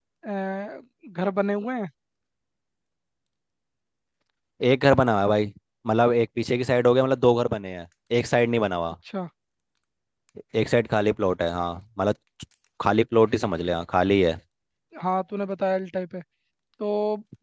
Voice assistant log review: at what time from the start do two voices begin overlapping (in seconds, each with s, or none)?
none